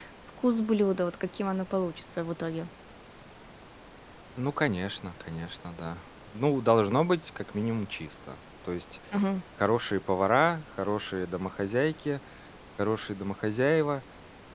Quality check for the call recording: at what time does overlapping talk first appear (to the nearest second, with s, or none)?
none